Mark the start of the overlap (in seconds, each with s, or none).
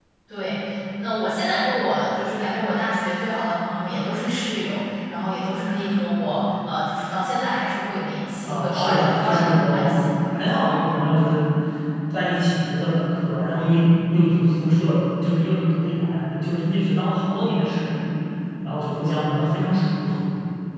8.4 s